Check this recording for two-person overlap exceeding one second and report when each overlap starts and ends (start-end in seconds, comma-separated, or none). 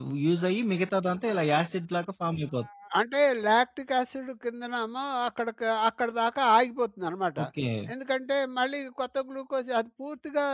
none